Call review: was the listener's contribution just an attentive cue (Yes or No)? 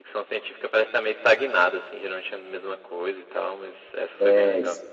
No